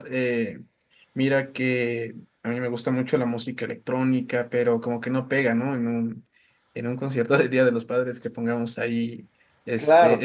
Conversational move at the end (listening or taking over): taking over